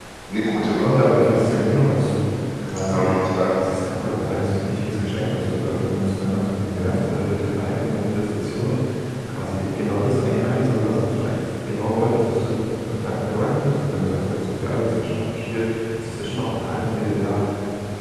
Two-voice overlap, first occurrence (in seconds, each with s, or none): 0.5 s